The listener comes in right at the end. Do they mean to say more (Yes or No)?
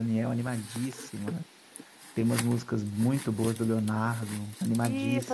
Yes